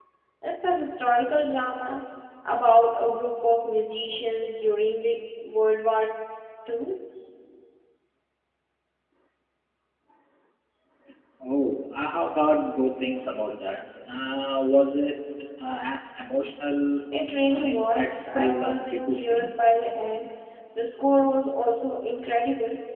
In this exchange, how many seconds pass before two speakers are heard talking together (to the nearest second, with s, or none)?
17 s